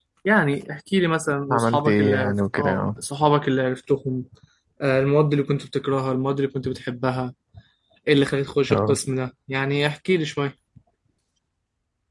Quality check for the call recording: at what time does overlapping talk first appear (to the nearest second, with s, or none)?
1 s